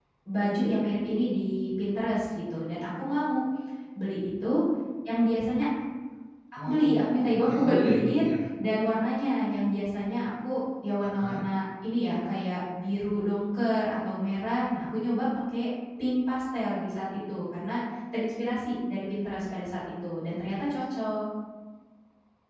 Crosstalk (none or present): present